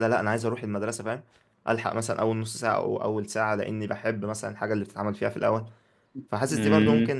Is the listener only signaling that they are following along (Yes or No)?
Yes